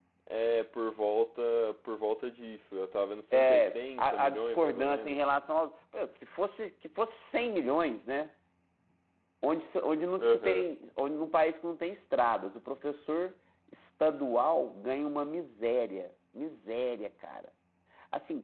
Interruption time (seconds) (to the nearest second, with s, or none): 3 s